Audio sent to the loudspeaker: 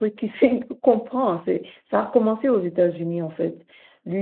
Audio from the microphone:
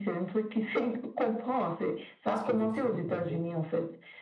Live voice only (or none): schizophrénie, d'accord?